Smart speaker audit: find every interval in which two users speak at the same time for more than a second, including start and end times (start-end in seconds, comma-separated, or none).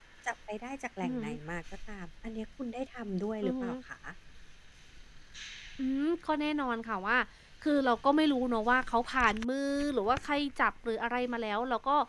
none